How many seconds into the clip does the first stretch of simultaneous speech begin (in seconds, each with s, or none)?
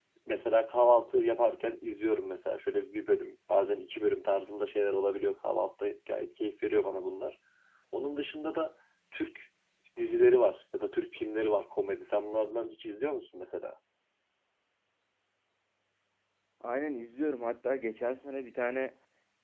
none